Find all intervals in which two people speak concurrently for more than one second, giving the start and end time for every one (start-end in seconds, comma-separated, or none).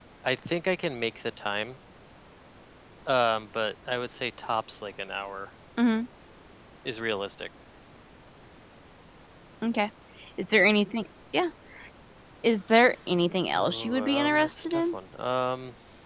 13.6-14.9